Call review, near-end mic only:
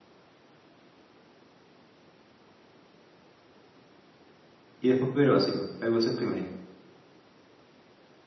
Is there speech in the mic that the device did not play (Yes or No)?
Yes